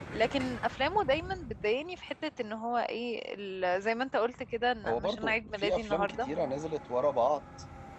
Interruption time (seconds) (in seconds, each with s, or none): 4.8 s